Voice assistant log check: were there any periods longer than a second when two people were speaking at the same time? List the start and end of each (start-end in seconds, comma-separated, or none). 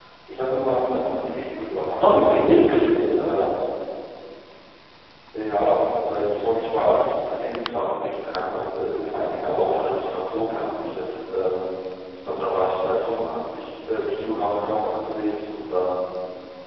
none